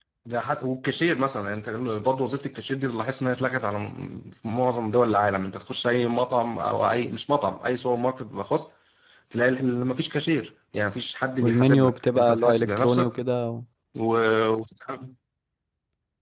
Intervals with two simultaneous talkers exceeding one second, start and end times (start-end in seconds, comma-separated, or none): 11.4-13.1